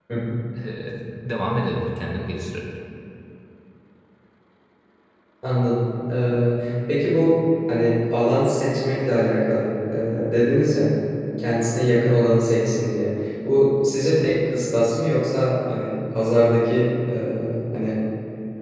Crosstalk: none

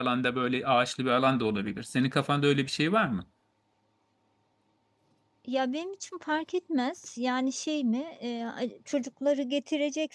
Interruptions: none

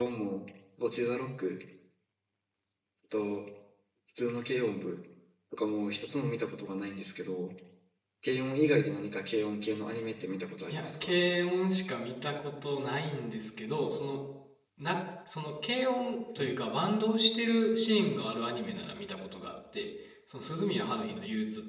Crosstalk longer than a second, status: none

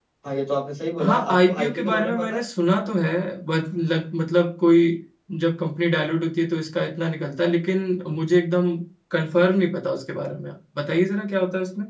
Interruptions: present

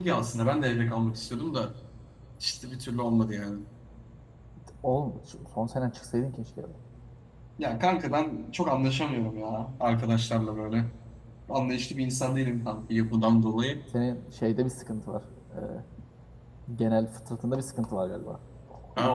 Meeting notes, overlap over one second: none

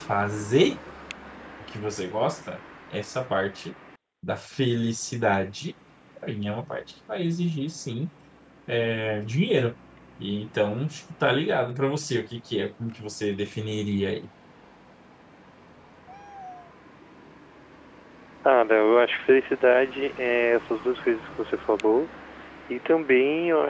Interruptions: none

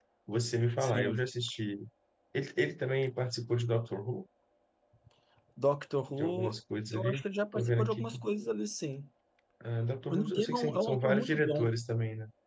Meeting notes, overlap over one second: present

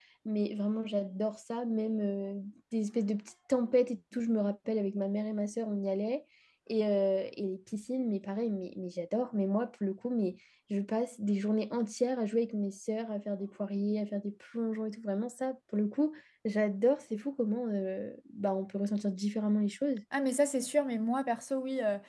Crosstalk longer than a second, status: none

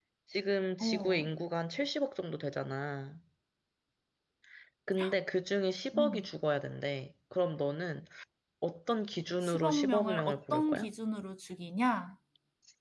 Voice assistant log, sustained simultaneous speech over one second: present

